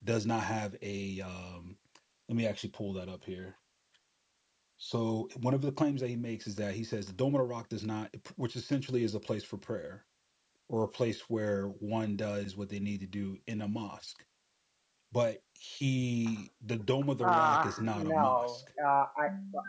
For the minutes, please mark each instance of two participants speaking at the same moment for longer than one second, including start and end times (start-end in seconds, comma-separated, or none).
17.2-18.6